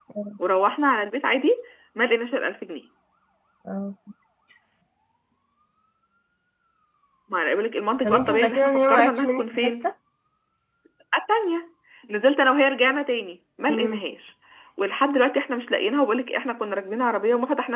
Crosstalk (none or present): present